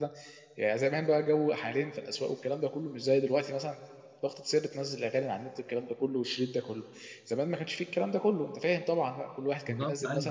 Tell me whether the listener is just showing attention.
No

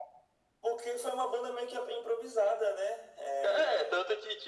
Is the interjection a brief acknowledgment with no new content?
No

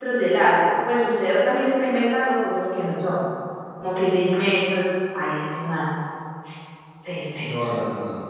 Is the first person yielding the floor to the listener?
Yes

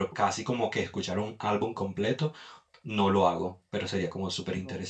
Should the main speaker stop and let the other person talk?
Yes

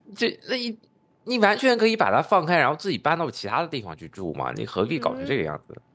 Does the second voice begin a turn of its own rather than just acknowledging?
Yes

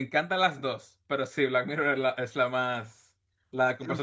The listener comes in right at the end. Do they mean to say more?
Yes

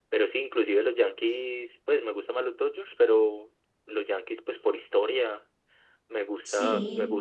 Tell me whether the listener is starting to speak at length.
No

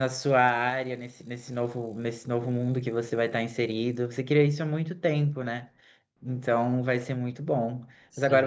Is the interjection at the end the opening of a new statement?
No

